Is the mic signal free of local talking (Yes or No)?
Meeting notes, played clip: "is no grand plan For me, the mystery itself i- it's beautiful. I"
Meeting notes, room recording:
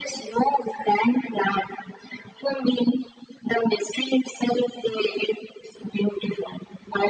Yes